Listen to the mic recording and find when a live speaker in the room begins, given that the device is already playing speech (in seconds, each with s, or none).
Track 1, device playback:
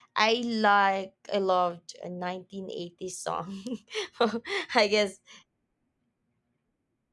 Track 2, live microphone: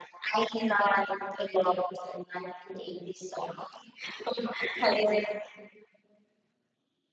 none